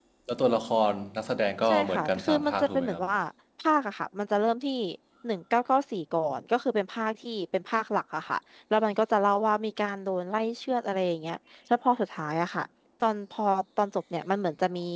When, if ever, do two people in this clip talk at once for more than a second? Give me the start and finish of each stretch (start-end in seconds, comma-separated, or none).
1.6-3.0